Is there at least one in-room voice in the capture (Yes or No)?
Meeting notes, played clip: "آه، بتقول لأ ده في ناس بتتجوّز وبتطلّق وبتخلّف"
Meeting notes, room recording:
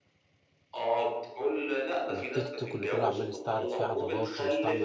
Yes